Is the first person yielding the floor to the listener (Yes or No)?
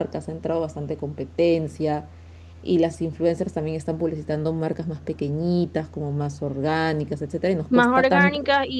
Yes